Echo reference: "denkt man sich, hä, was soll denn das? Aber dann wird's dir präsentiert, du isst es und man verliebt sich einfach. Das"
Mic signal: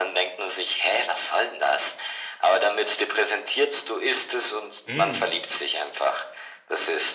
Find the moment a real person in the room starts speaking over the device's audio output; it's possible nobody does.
5 s

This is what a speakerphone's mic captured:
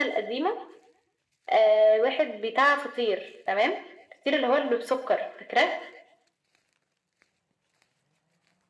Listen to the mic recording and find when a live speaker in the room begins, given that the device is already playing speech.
none

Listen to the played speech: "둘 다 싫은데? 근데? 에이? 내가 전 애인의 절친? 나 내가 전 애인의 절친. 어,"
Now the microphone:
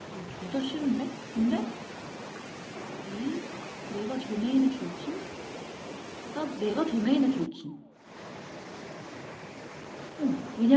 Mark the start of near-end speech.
none

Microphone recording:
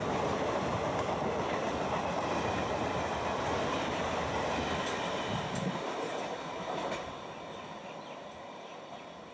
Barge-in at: none

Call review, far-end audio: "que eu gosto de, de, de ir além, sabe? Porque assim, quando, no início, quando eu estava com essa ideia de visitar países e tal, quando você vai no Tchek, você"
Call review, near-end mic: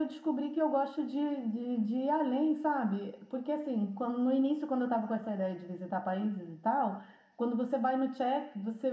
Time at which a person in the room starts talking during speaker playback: none

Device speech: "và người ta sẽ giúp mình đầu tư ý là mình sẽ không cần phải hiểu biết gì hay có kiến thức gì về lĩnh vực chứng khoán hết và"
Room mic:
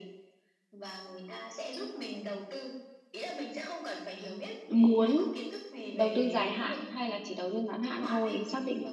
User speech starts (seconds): 5 s

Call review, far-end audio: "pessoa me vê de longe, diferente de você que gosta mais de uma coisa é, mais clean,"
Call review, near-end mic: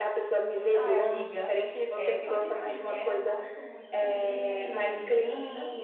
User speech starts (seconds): 1 s

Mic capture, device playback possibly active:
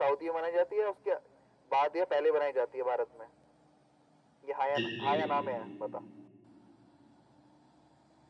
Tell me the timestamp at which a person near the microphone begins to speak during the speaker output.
5 s

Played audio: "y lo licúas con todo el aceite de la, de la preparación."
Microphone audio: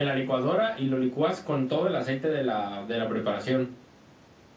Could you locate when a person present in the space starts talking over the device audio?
none

